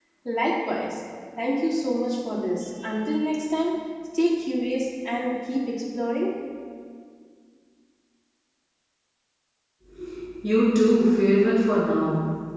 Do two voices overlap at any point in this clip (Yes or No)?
No